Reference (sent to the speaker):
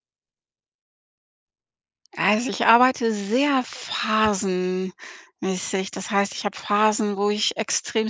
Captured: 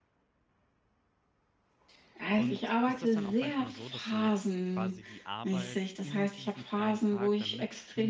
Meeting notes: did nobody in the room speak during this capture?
No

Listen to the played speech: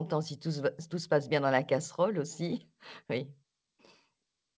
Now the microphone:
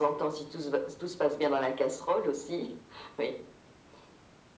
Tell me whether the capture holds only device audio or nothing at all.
Yes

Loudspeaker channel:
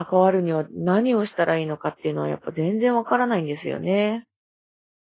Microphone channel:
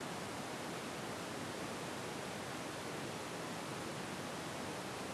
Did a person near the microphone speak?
No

